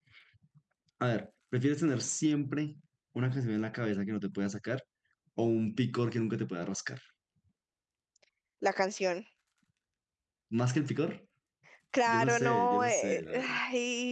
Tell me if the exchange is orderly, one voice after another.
No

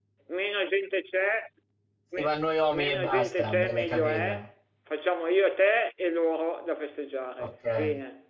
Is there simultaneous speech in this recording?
Yes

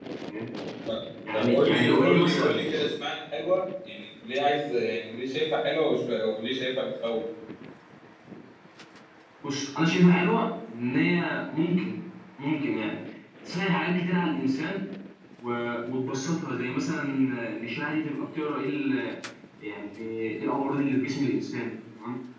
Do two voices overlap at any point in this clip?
Yes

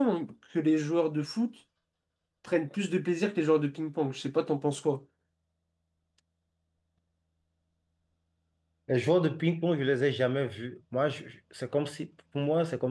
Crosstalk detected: No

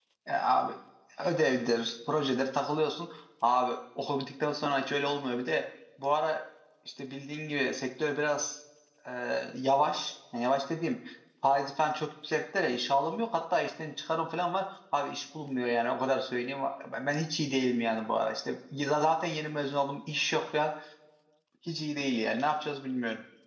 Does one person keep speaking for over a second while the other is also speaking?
No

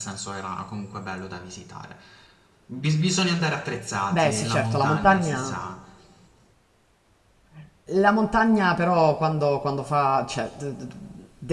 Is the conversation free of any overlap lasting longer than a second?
No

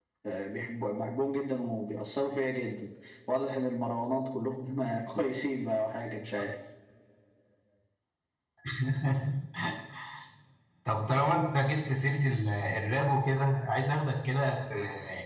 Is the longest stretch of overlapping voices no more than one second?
Yes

